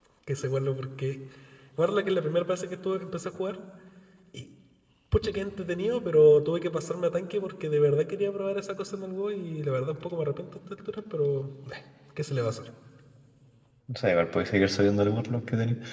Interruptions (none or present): none